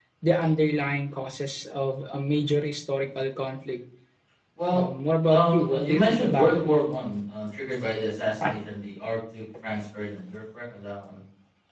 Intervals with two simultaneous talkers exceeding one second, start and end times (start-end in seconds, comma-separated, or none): 5.3-6.6